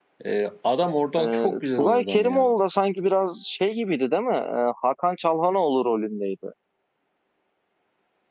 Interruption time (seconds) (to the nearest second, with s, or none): 1 s